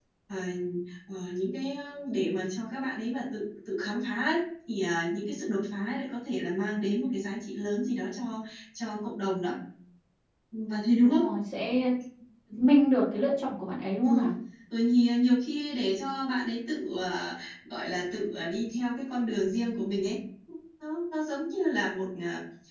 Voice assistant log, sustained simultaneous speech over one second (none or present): none